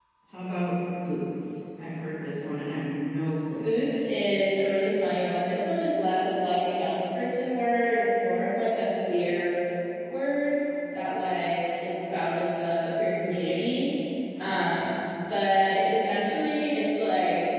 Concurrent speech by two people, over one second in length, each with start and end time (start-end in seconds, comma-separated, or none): none